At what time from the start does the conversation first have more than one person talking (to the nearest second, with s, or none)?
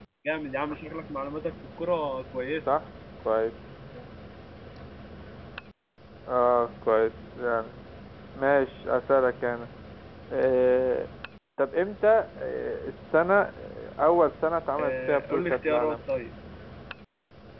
15 s